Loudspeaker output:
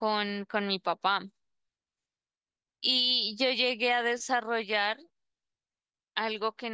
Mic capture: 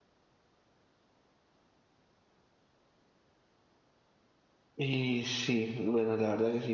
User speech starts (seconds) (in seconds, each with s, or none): 4.8 s